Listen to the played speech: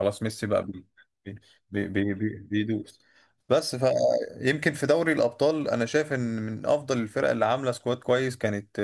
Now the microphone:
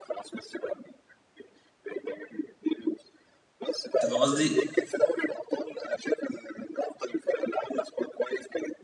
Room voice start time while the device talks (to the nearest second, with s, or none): 4 s